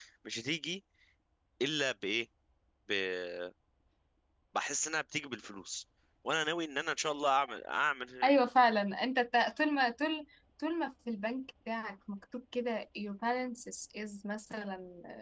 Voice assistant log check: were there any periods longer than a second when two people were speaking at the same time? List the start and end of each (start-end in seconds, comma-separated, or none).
none